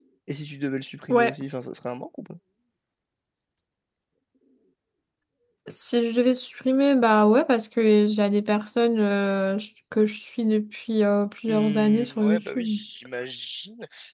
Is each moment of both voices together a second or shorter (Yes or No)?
No